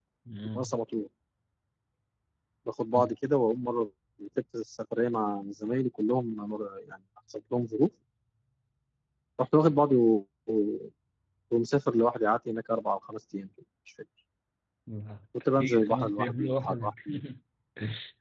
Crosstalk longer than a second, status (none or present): present